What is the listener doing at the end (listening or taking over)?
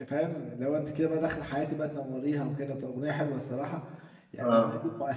listening